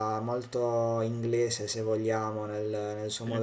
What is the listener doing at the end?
listening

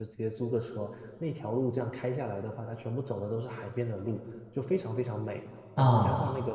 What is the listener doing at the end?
listening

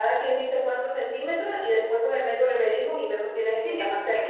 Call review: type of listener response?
taking over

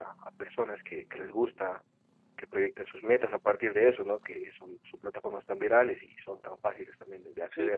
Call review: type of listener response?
taking over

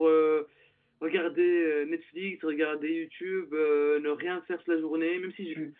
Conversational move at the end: taking over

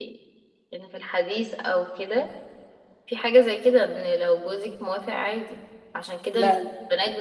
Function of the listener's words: listening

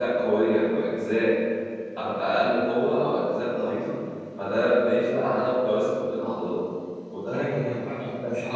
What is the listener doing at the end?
taking over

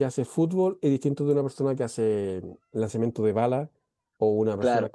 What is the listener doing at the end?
taking over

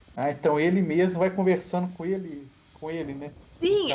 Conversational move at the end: taking over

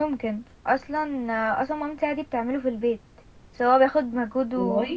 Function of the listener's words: listening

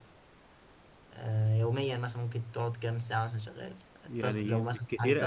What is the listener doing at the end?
taking over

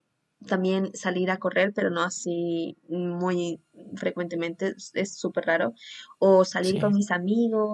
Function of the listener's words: listening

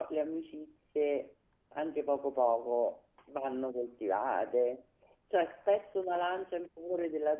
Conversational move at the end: listening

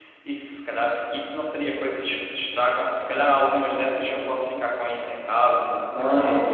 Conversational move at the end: taking over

